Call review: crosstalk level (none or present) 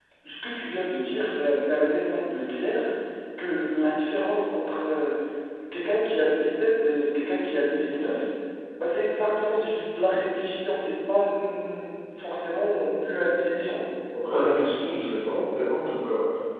none